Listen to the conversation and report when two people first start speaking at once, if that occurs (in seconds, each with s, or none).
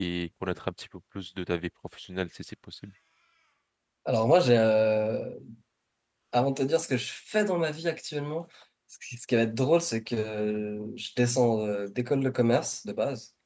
none